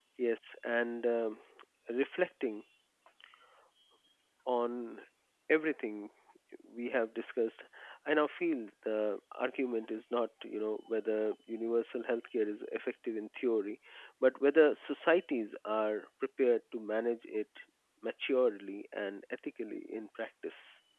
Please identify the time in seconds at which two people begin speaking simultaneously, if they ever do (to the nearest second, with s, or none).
none